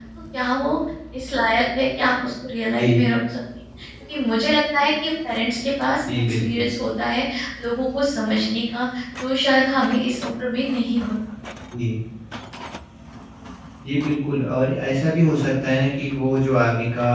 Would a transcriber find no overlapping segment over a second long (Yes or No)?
Yes